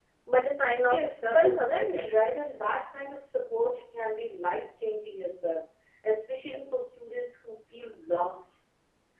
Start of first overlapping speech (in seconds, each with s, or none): 0.9 s